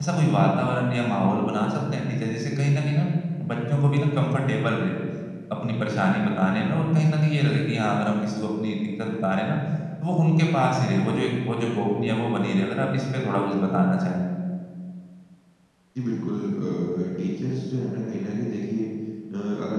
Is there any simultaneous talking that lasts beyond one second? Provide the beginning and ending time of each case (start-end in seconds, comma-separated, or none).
none